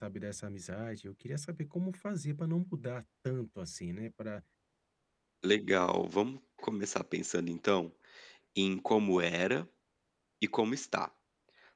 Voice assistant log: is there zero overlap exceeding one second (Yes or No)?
Yes